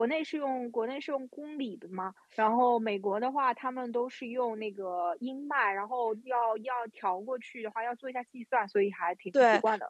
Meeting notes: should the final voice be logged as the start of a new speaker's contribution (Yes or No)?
Yes